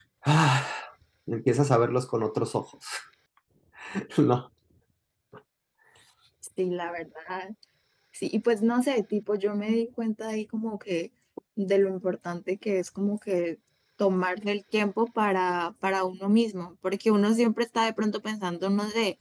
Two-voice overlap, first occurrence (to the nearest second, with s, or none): none